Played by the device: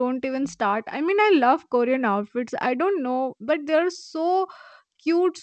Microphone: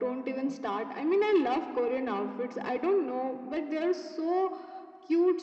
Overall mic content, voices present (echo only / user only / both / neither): echo only